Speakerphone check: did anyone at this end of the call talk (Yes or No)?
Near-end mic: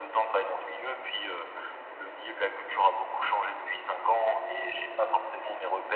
No